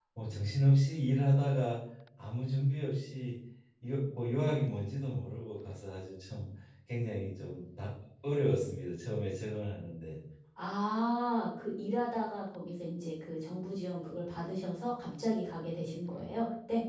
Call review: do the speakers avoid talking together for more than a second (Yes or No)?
Yes